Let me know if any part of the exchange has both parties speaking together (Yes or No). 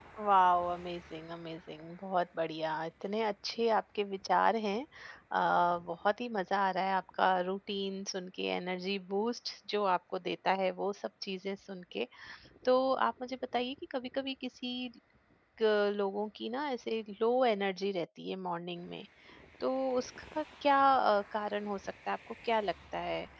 No